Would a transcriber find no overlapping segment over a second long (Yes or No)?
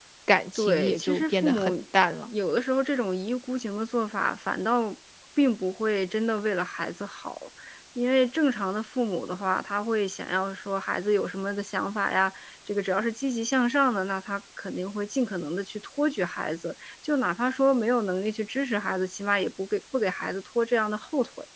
No